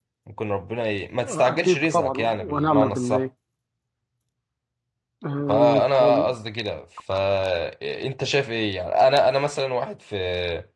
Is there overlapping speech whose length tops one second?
Yes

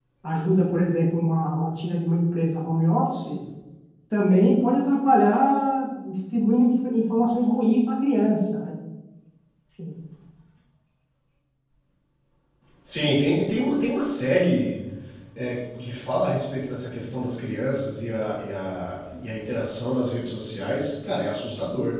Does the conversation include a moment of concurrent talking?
No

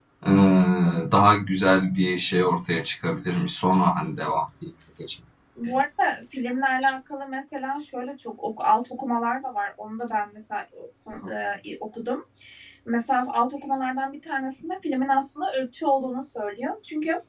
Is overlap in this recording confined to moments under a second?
Yes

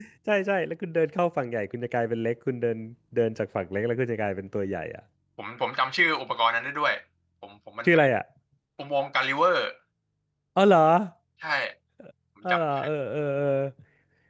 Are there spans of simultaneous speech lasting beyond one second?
No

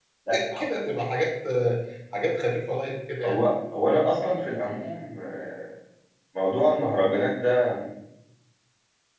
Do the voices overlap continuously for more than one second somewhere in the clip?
No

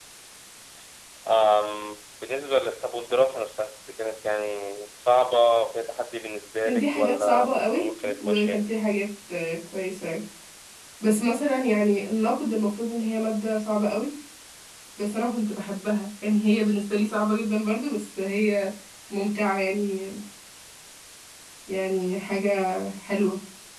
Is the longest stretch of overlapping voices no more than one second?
No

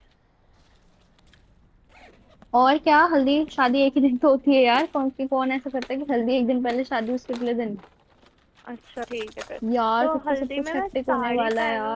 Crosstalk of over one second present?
Yes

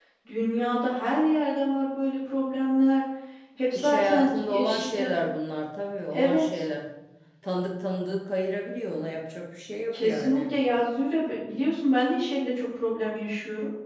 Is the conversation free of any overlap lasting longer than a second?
No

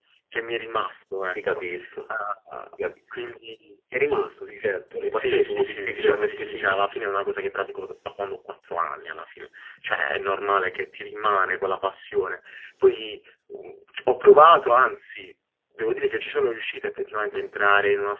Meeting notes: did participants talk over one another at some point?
Yes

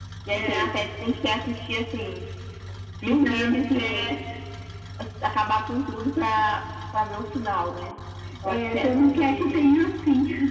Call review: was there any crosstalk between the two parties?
Yes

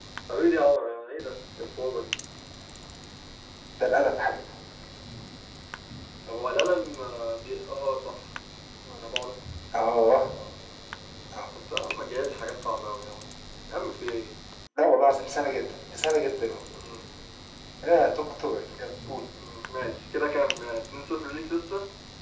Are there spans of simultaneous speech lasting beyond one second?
No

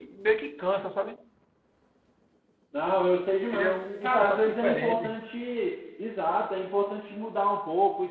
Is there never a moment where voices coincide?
No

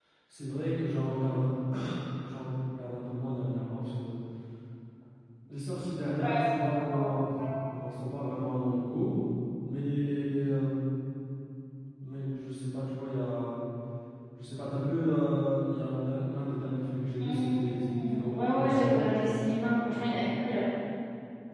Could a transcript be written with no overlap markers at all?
No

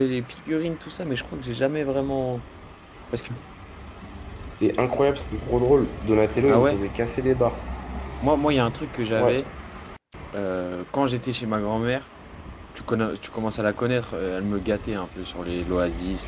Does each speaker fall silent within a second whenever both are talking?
Yes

